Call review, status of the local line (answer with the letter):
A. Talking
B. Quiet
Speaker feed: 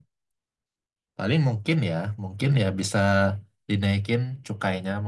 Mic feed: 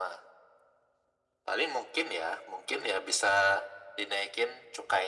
B